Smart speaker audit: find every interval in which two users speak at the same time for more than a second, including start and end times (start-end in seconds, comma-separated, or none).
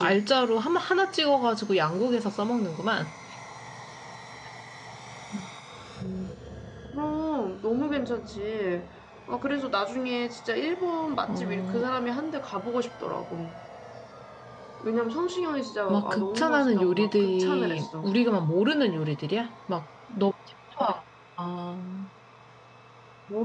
15.9-18.1